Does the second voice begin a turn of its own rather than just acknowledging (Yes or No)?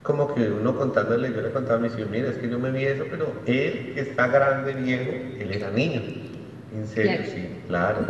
No